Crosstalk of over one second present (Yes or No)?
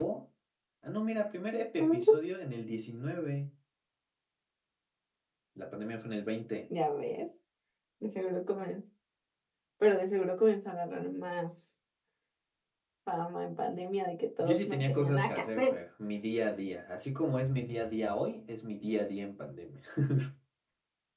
Yes